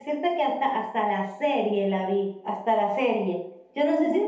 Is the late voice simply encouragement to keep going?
No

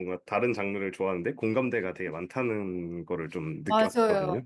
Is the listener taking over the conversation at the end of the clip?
Yes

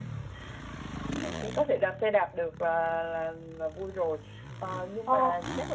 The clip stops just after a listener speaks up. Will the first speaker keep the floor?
Yes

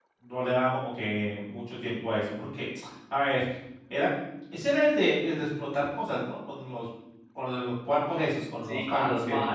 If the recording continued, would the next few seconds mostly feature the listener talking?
Yes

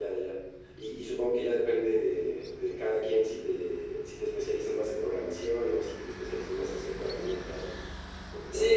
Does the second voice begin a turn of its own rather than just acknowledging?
Yes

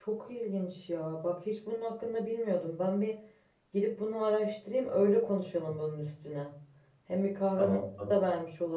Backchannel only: Yes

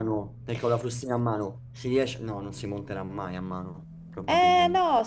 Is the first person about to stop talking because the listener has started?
Yes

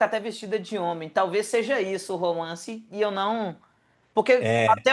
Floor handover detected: No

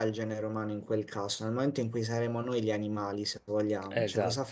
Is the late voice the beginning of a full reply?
Yes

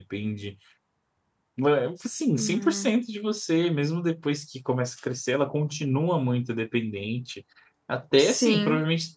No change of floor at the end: Yes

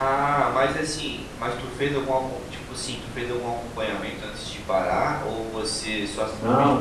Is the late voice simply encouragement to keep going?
No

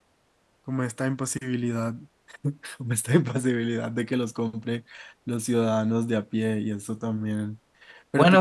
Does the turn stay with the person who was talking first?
No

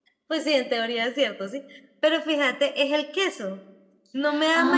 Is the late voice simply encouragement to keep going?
Yes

